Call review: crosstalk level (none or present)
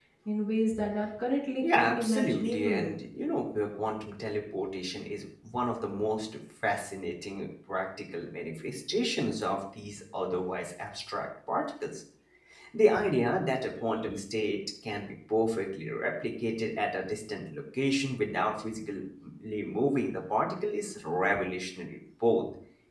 present